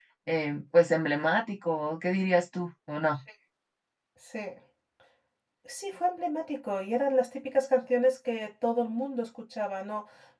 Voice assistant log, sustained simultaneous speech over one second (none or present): none